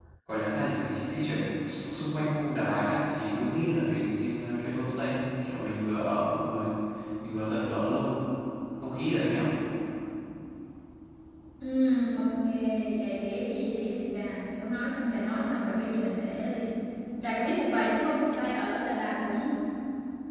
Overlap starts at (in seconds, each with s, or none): none